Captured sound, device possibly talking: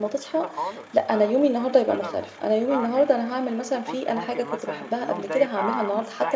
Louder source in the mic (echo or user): user